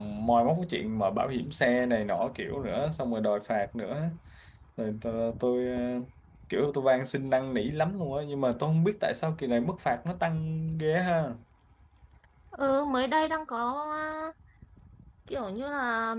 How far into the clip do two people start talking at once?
none

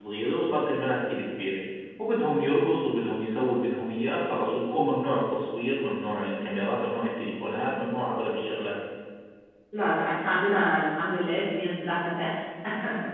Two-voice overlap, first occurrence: none

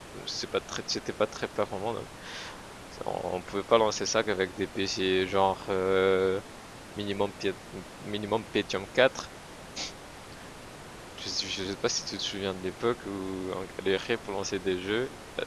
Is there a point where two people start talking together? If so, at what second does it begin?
none

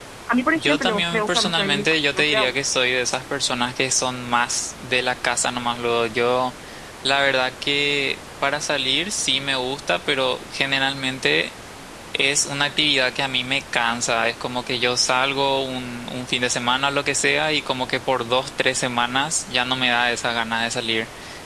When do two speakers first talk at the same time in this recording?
1 s

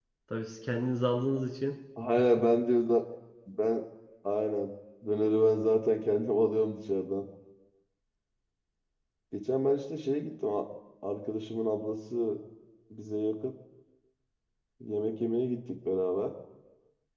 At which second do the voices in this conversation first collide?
none

